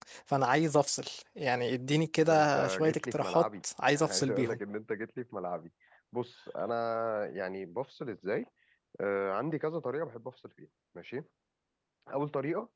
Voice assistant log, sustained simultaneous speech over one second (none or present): present